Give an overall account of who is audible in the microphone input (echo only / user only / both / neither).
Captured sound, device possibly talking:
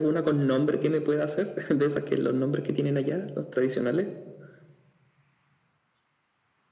echo only